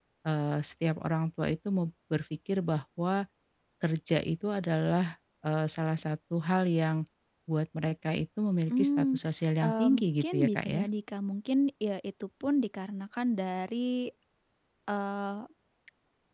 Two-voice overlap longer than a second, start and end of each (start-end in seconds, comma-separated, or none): 9.7-10.9